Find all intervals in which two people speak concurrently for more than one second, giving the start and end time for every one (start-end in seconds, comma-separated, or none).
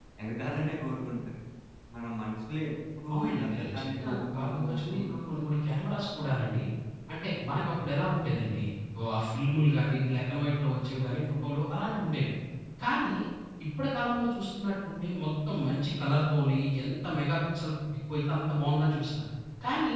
3.1-5.1